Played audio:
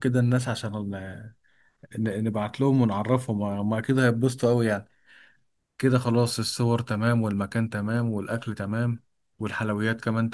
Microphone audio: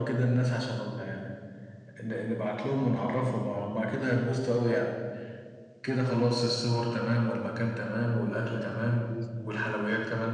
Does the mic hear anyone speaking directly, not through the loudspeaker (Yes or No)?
Yes